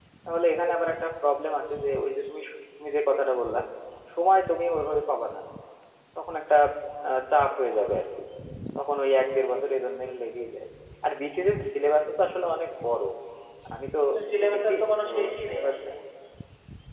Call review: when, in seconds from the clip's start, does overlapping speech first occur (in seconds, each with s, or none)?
14.4 s